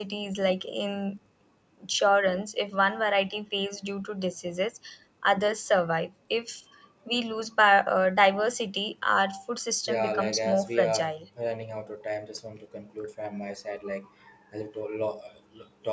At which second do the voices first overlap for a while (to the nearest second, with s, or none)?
10 s